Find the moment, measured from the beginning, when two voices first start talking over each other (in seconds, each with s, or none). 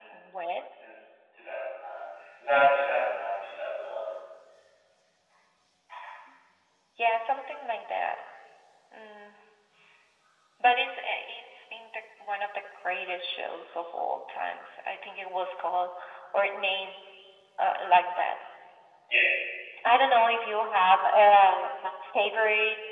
none